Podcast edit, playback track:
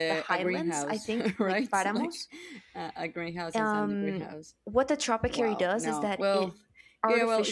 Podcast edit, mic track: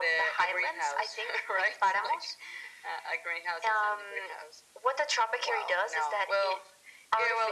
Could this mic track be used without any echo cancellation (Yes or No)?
No